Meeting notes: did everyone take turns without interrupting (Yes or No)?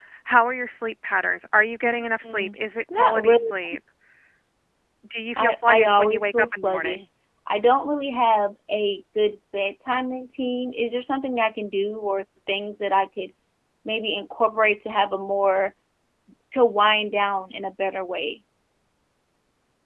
No